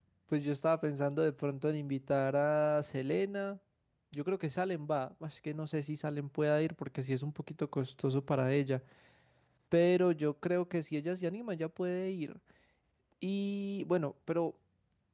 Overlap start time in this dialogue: none

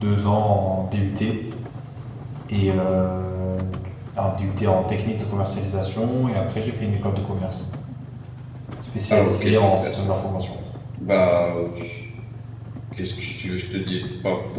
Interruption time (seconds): 9 s

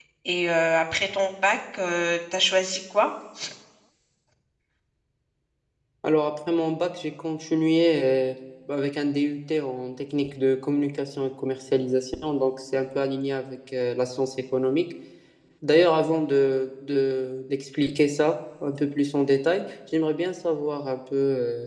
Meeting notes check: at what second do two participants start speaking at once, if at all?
none

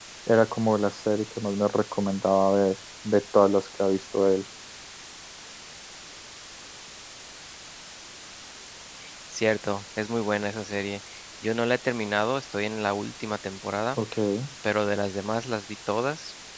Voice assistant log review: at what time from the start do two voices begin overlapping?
none

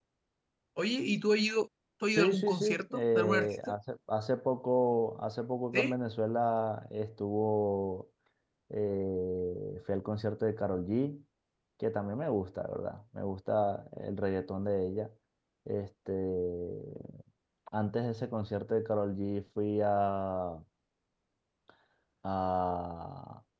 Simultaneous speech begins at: 2 s

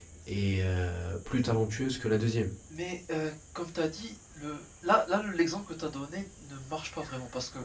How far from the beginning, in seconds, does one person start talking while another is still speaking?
none

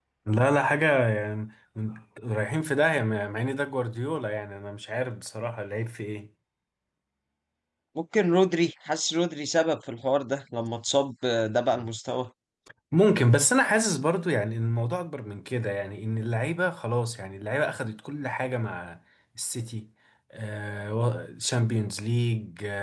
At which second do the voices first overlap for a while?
none

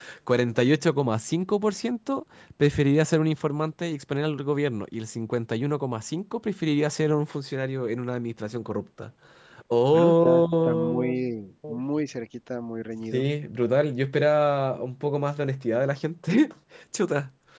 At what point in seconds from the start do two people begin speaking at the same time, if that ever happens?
10 s

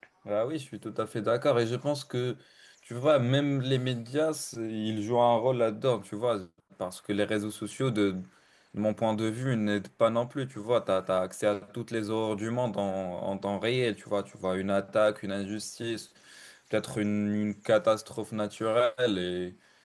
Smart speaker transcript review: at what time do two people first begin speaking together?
none

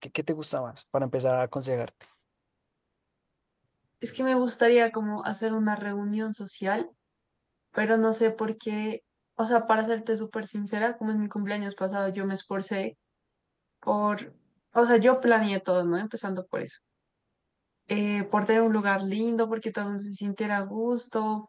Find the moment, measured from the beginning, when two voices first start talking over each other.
none

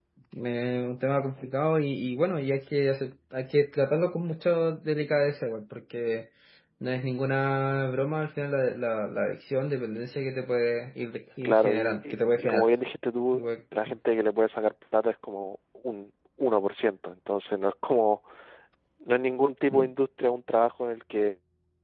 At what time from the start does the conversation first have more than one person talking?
11 s

